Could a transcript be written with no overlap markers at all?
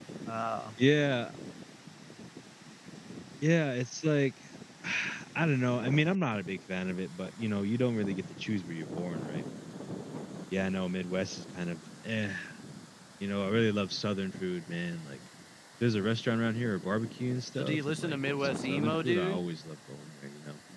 No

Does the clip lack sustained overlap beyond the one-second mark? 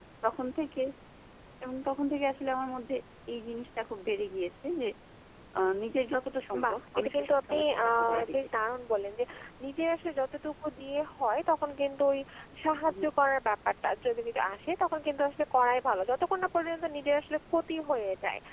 No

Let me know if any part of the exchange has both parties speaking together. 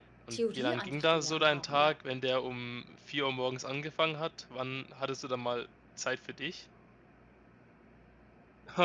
Yes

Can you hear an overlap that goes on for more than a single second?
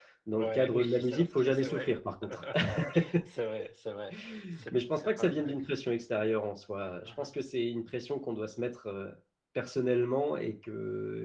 Yes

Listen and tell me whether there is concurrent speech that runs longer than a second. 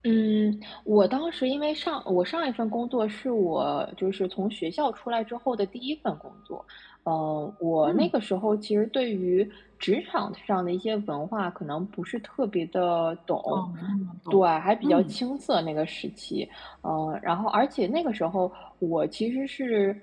No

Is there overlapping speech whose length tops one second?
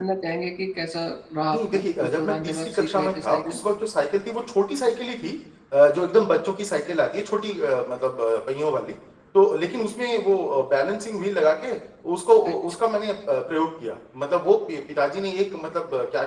Yes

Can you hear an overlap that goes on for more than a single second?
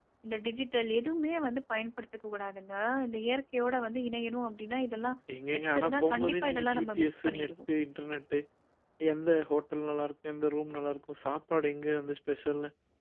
Yes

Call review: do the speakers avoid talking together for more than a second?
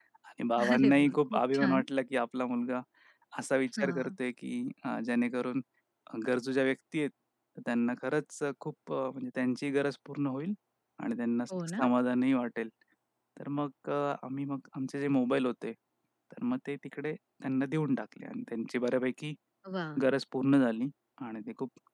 No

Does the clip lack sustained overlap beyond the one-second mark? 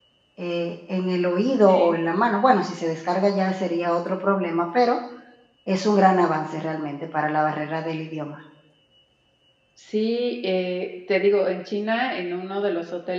Yes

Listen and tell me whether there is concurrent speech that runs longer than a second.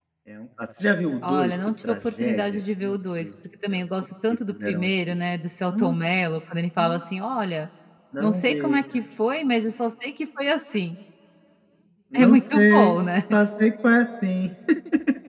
Yes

